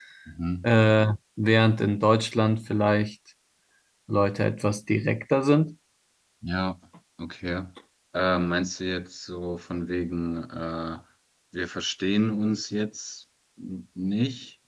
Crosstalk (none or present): none